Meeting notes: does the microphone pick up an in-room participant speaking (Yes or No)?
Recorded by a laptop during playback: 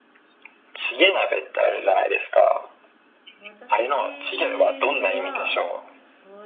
Yes